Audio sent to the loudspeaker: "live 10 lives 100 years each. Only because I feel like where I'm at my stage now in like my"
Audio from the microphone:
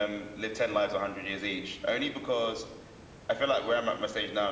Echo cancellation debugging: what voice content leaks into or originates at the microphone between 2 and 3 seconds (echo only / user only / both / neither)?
echo only